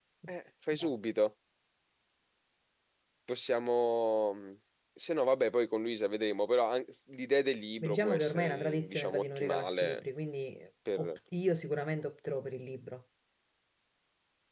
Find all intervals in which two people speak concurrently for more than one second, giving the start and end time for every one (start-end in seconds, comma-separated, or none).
7.8-10.0